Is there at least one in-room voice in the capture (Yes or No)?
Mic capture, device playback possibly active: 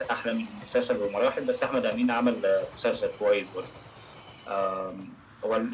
No